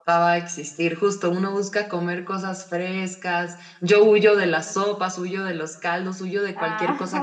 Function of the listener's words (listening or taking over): listening